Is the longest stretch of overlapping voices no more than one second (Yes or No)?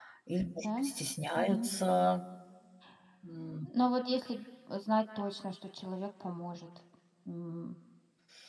Yes